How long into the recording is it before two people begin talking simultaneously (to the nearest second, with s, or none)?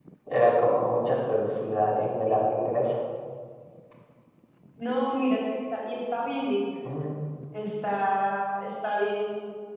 none